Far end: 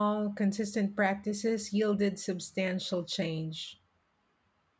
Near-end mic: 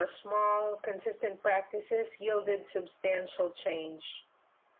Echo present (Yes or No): Yes